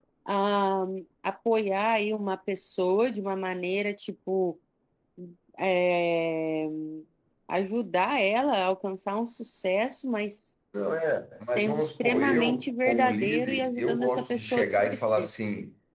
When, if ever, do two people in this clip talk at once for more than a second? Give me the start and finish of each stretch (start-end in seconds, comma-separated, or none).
11.4-15.3